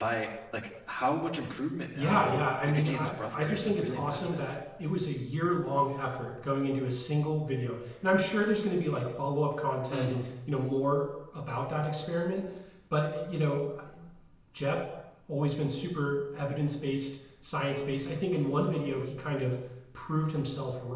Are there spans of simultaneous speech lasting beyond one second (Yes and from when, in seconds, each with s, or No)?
Yes, from 1.9 s